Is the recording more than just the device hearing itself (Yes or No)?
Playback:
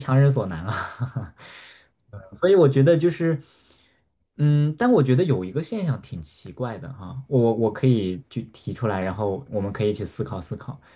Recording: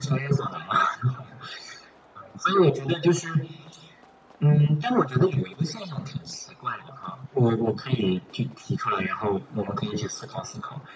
No